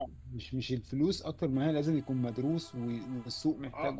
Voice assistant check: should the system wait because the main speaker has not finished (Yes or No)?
No